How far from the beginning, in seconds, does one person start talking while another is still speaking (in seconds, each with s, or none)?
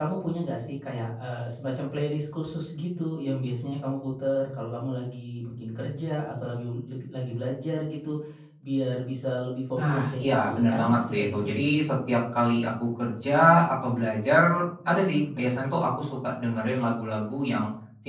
9.8 s